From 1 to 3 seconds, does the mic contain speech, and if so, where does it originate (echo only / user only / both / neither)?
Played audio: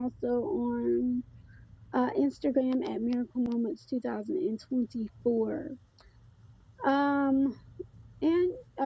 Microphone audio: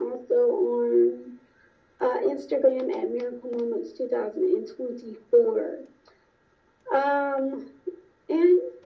echo only